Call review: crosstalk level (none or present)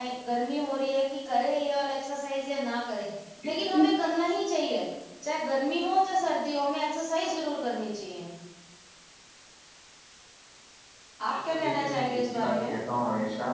present